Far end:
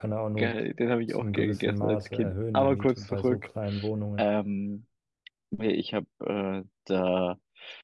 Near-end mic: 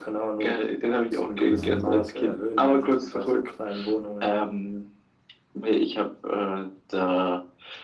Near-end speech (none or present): present